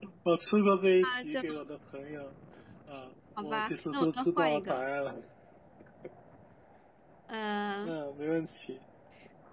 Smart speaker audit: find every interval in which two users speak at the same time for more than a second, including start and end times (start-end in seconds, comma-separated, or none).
3.4-4.8